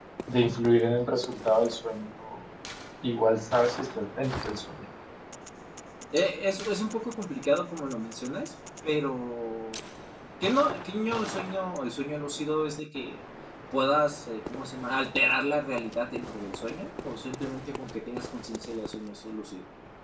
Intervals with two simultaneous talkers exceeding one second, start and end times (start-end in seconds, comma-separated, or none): none